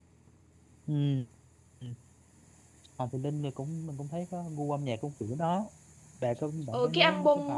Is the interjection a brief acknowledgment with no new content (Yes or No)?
No